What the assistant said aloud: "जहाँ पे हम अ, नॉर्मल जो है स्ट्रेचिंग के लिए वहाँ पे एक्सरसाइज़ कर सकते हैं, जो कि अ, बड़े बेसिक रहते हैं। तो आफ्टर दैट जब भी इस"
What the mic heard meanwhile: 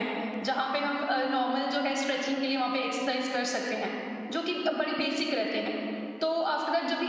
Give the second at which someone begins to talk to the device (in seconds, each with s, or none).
none